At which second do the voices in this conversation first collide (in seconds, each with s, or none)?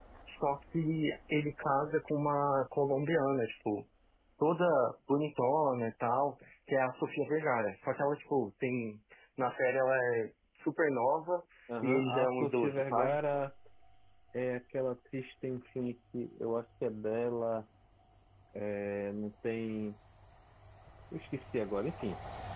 11.8 s